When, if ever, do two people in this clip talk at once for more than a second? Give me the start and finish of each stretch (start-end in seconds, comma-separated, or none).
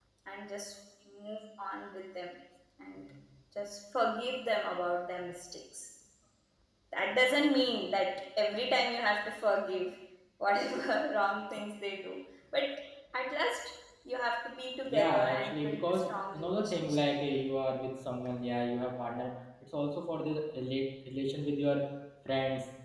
14.9-17.0